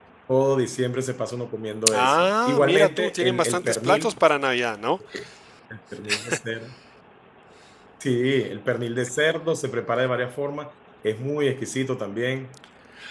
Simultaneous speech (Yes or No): Yes